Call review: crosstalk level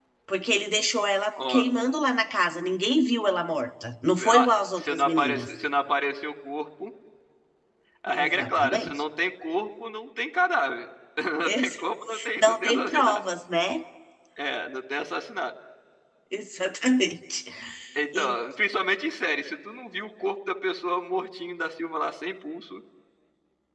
present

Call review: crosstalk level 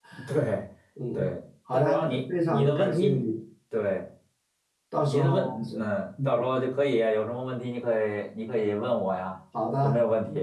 present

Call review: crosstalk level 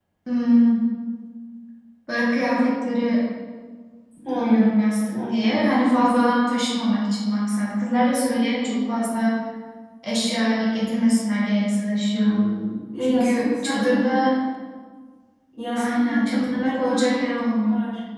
present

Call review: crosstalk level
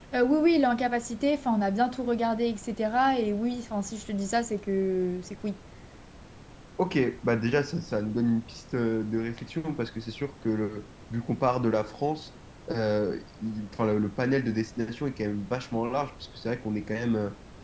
none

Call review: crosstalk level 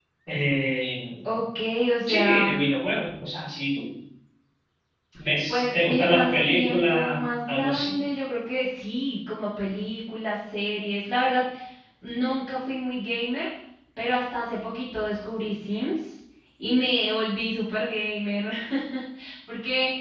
present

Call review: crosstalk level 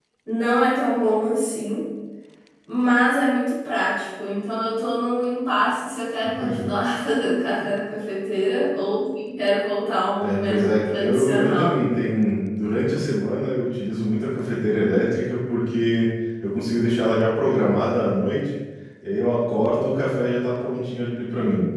present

